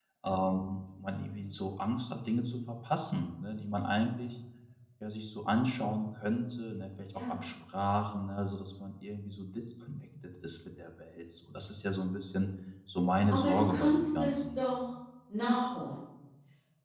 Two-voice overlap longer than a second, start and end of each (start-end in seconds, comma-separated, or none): 13.3-14.6